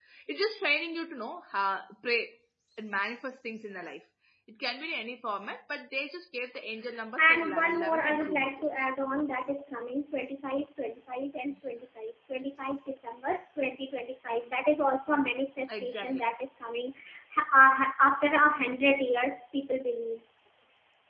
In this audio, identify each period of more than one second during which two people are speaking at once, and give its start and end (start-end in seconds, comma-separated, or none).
7.2-8.9